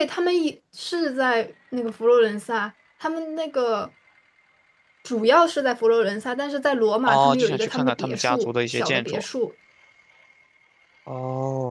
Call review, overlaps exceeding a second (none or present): present